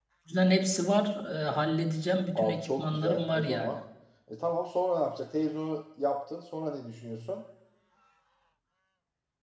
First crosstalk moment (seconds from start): 2 s

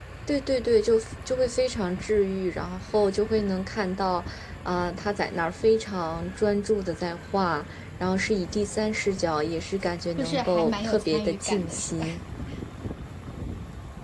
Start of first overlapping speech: 10 s

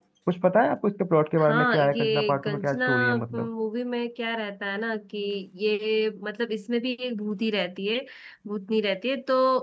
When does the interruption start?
1 s

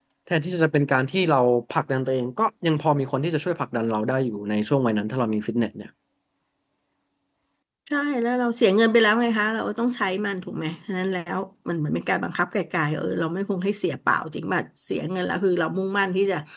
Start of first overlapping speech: none

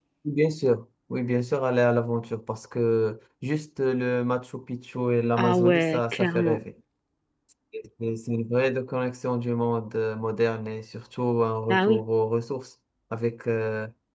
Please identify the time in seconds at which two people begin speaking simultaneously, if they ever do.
5 s

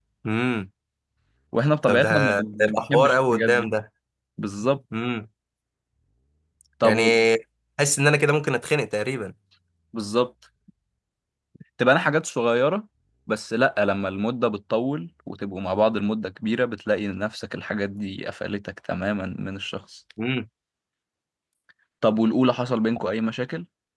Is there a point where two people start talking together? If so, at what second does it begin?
2 s

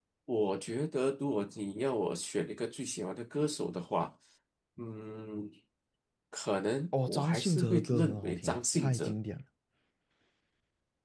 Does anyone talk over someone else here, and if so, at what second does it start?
7 s

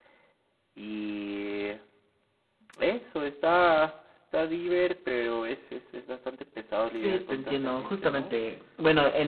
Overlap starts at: 7 s

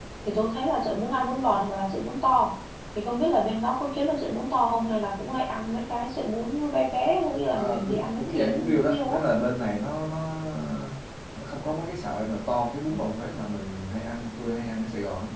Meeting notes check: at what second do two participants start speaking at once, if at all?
8 s

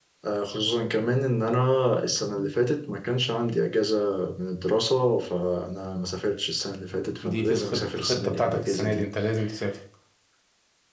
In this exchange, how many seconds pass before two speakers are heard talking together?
7 s

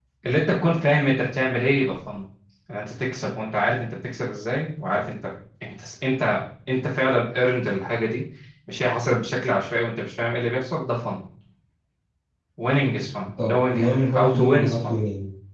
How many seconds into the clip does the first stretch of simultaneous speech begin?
13 s

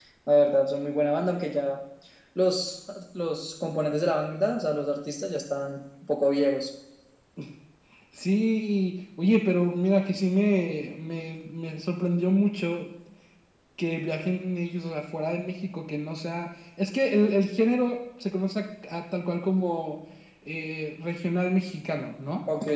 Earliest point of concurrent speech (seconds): none

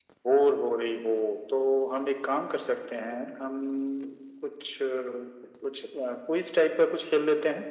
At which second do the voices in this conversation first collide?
none

